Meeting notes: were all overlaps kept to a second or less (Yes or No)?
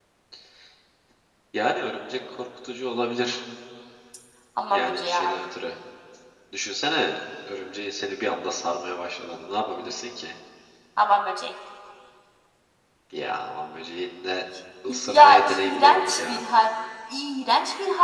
No